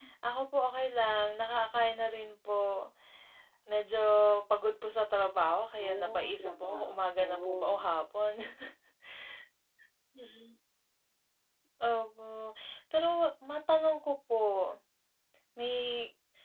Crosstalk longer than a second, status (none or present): present